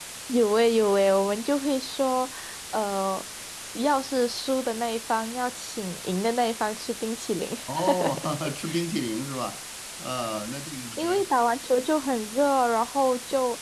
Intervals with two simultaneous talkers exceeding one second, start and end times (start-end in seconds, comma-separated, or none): none